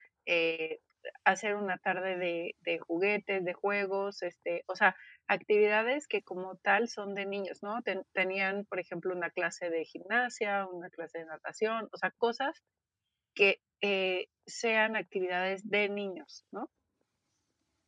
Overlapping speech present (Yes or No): No